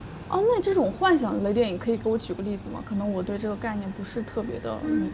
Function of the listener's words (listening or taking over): taking over